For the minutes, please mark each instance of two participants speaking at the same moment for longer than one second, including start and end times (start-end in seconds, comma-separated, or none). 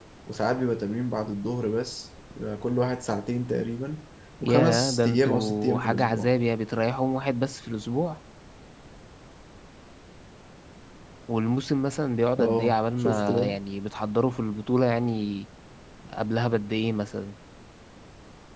4.4-6.3, 12.4-13.6